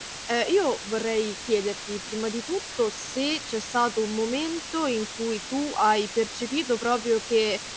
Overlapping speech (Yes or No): No